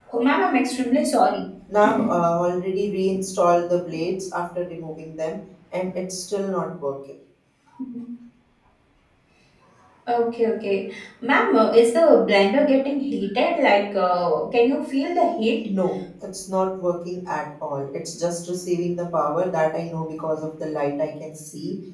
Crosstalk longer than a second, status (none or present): none